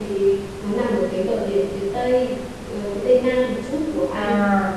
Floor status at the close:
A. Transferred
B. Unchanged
B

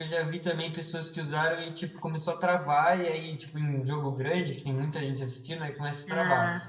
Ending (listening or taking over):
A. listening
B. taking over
A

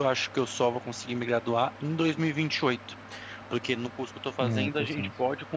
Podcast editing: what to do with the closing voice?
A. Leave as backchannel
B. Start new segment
A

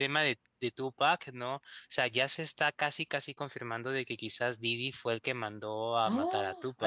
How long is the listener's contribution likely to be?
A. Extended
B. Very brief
A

